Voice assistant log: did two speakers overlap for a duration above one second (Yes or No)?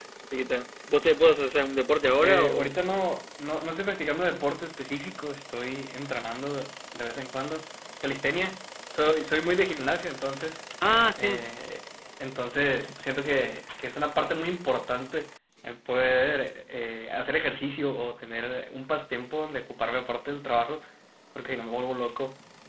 No